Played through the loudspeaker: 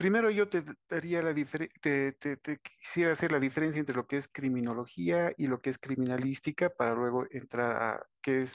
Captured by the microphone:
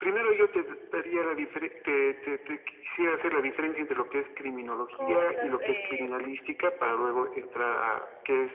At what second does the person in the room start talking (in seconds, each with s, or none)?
4.9 s